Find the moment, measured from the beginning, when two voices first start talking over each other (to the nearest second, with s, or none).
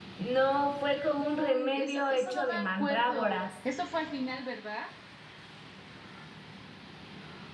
1 s